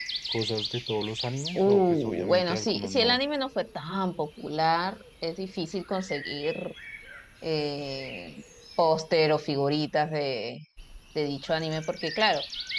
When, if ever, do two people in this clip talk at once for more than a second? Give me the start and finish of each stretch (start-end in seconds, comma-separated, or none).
1.6-3.2